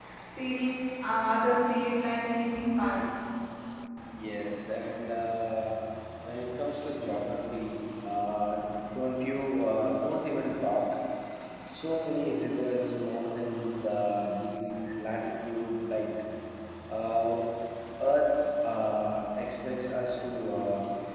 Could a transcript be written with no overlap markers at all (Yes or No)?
Yes